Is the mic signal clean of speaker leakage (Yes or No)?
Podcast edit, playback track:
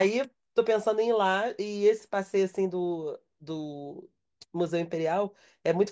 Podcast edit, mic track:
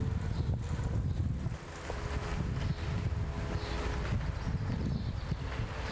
Yes